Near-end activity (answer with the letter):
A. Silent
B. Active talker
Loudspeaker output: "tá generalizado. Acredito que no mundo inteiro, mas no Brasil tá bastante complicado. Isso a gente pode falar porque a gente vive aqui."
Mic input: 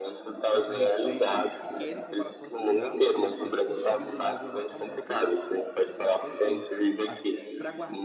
B